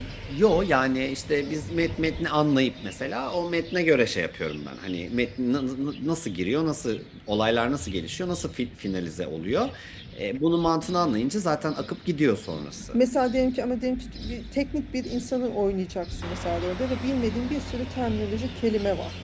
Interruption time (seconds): none

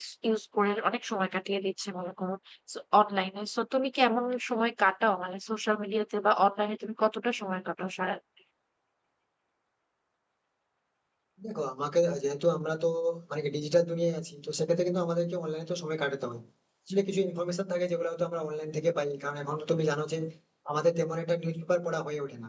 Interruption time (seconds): none

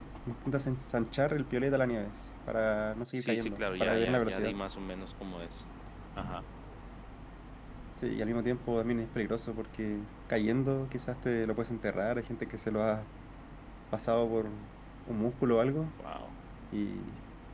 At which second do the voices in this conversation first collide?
3.2 s

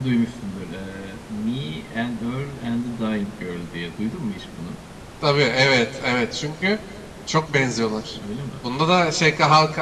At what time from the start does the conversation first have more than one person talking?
none

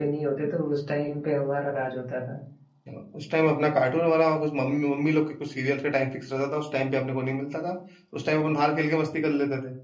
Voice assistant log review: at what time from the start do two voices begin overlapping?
none

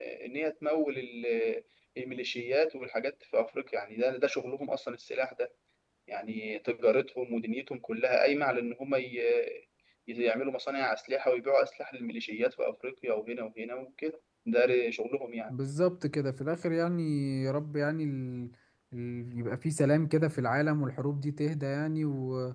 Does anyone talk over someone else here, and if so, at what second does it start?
none

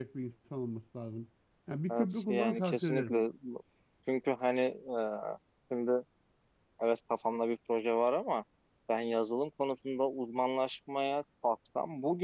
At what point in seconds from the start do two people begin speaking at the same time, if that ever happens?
1.9 s

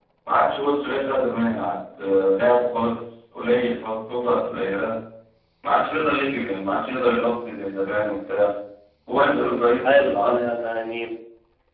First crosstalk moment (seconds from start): 9.2 s

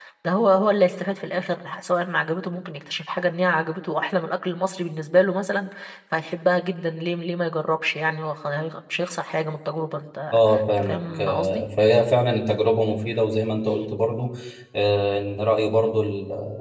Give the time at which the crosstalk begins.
10.3 s

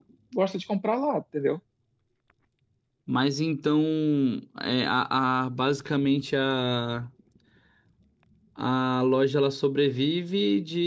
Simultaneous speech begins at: none

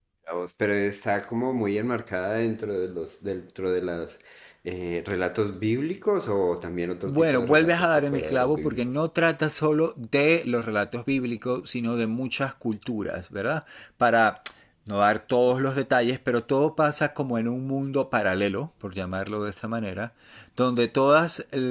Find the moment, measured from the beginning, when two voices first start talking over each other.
7.0 s

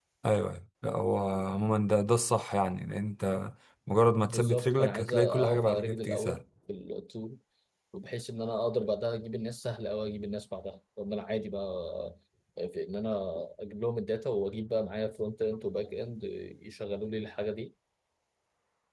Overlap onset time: 4.2 s

